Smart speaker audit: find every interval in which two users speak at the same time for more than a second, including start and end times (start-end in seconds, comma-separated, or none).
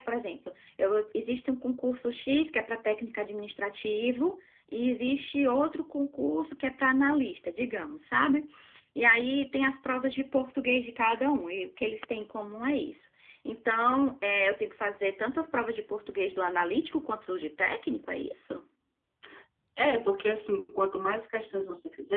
none